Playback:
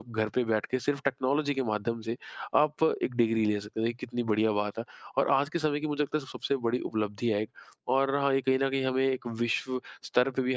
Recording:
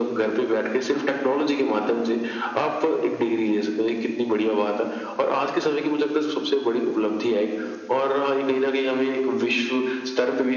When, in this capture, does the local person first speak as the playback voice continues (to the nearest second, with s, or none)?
none